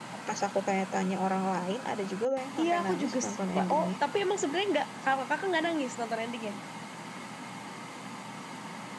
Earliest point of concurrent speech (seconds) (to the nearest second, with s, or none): 3 s